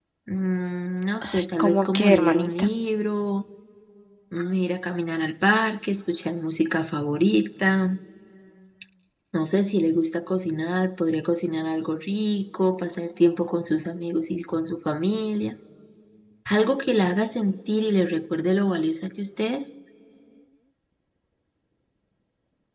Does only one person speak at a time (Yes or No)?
No